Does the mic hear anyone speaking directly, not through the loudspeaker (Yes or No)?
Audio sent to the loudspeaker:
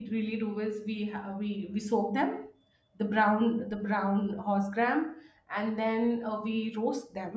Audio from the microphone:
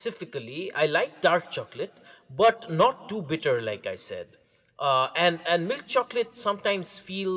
Yes